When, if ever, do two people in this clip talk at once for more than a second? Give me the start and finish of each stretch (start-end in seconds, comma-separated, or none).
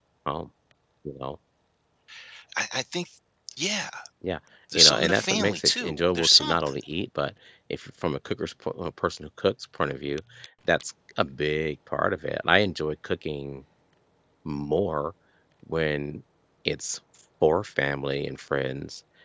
4.8-6.7